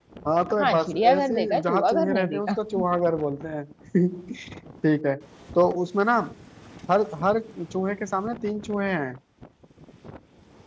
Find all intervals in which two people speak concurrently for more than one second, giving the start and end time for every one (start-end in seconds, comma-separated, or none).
0.6-2.6